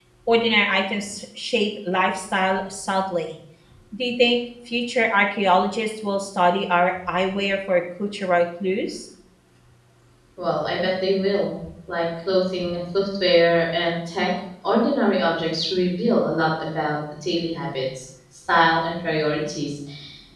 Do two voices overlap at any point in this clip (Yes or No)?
No